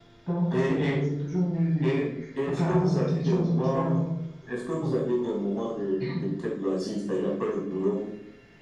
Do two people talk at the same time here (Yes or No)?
Yes